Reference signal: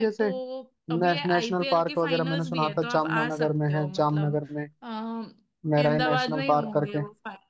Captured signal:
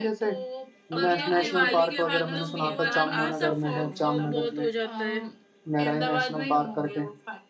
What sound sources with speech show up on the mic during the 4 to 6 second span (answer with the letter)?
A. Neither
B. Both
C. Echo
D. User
B